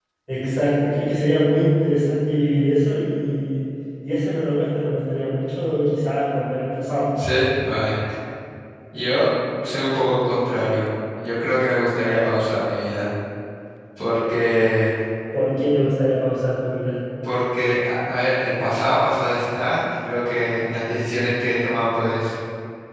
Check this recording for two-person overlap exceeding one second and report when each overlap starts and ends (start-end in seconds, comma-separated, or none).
none